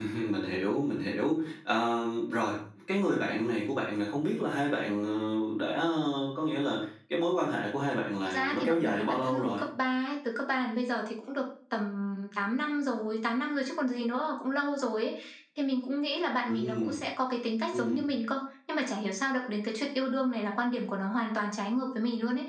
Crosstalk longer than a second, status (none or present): present